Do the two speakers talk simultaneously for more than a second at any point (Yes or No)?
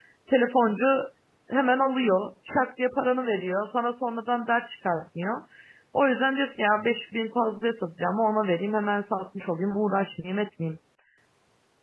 No